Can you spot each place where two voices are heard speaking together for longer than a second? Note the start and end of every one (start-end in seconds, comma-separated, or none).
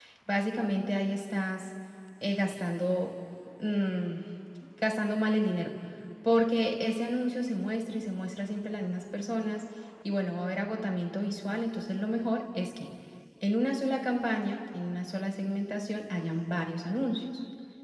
none